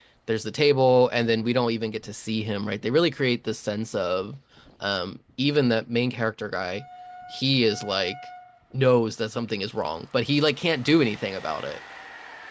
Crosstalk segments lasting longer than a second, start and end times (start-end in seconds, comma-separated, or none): none